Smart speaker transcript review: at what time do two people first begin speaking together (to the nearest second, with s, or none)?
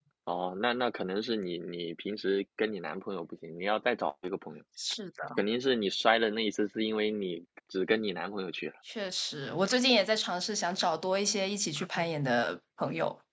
none